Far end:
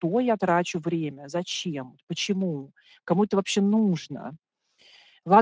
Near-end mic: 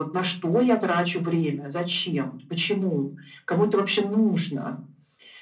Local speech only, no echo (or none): none